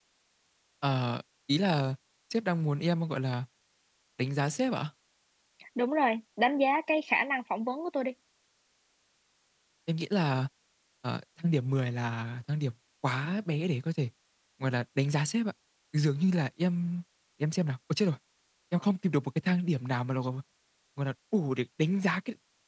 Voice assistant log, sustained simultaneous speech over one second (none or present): none